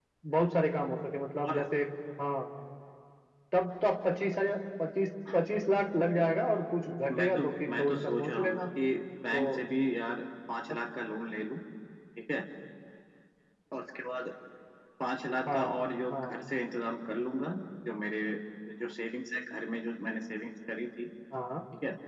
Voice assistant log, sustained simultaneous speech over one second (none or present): present